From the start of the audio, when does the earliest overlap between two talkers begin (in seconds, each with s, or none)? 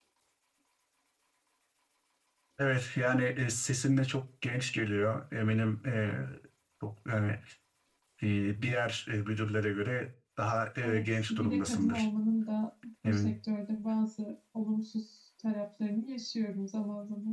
10.8 s